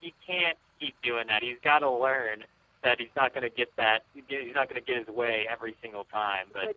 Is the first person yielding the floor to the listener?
Yes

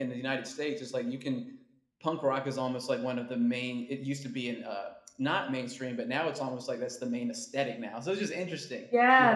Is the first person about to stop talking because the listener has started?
Yes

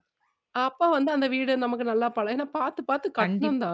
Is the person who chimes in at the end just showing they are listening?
Yes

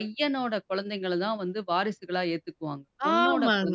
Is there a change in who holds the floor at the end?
Yes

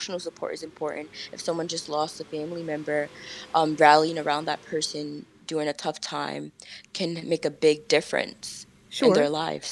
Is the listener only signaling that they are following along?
No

